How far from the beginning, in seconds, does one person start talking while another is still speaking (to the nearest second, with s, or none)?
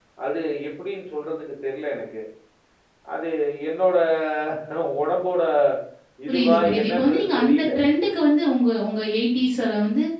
6 s